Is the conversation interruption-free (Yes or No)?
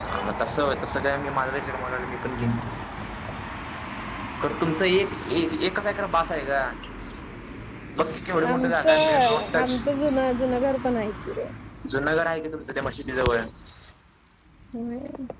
No